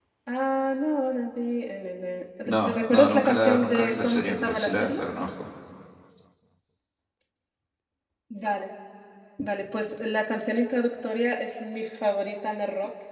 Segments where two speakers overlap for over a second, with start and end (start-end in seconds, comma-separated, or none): 2.5-5.0